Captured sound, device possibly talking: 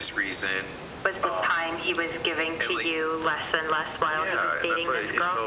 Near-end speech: none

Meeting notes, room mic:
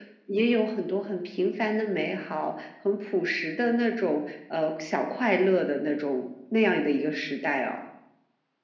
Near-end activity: none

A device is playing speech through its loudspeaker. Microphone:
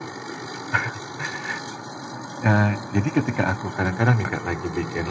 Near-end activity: none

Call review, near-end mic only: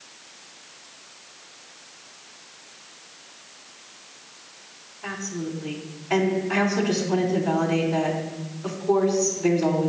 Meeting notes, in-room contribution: present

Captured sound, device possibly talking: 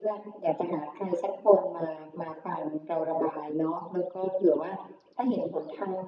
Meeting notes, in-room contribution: none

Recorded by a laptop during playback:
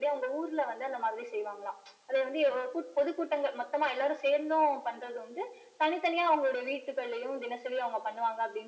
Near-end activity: none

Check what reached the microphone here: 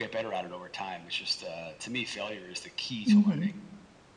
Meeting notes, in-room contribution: present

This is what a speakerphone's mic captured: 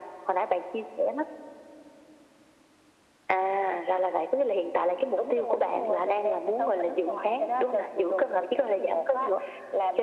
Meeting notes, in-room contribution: none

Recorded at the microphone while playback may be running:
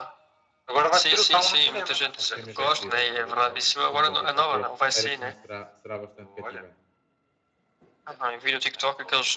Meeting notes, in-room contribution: present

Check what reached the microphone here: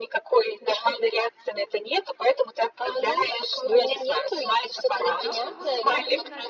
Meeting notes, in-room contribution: present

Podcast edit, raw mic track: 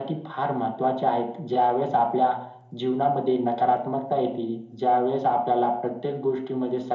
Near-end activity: none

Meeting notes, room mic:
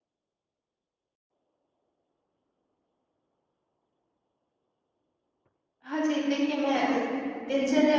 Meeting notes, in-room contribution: present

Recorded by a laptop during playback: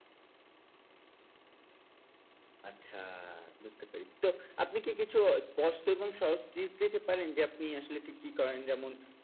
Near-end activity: none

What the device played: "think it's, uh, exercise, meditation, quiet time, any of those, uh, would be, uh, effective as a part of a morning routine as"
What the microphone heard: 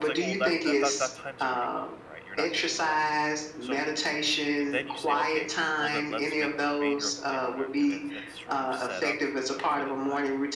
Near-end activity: present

